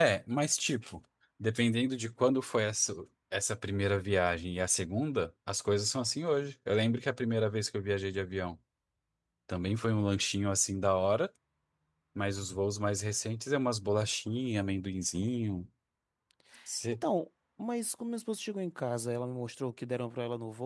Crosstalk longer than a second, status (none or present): none